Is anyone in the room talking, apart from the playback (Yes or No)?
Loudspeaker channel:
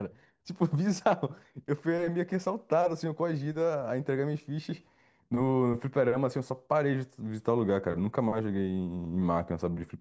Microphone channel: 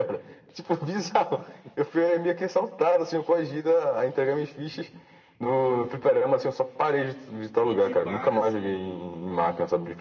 Yes